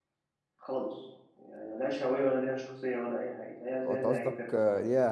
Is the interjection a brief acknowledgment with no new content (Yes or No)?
No